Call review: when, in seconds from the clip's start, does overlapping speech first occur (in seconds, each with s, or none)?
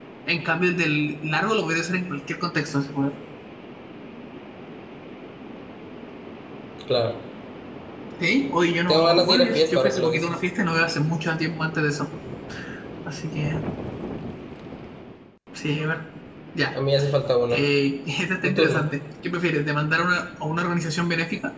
8.9 s